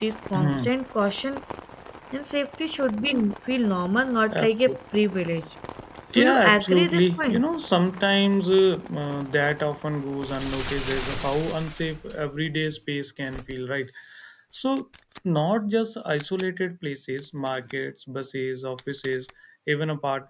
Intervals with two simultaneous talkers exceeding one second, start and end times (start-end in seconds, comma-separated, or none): 6.1-7.4